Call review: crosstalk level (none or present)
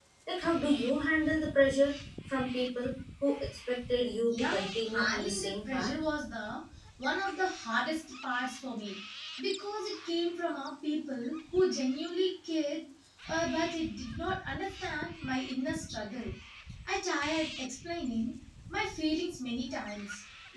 present